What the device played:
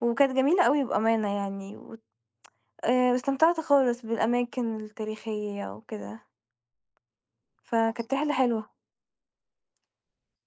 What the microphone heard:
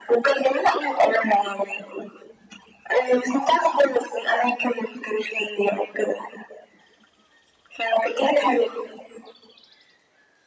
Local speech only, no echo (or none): none